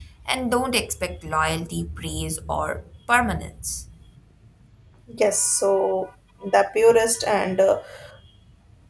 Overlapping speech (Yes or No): No